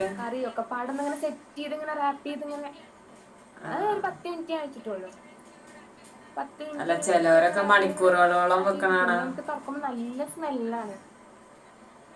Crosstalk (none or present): present